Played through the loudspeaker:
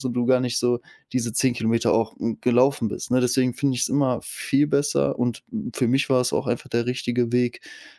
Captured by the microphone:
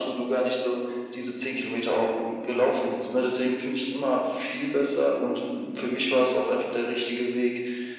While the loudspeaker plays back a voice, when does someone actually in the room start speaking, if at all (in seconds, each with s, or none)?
none